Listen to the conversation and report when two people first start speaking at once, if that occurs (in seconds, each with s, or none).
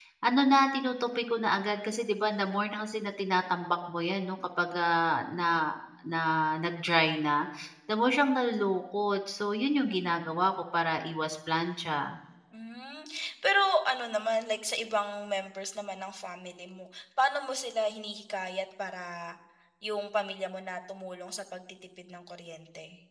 none